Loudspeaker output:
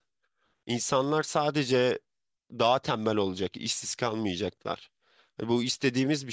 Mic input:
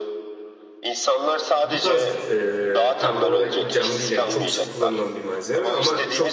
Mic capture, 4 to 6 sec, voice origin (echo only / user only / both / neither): both